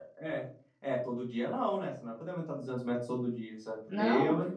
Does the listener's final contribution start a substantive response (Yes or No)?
No